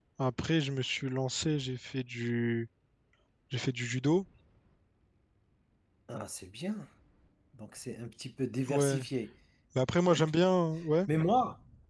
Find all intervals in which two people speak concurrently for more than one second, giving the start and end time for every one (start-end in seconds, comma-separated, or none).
none